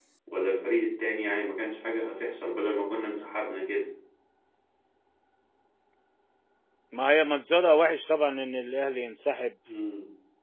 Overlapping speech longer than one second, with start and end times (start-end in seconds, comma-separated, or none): none